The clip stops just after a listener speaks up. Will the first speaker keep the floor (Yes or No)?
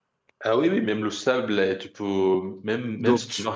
Yes